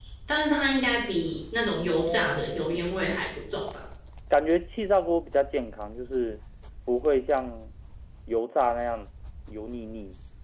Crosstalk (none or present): present